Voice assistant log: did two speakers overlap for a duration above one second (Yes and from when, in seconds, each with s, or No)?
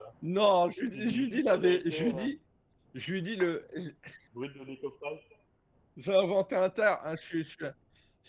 Yes, from 0.9 s